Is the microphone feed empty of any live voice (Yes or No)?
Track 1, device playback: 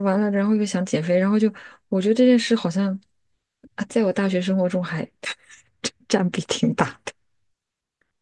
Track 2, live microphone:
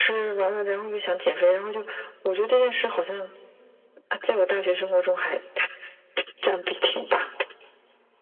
Yes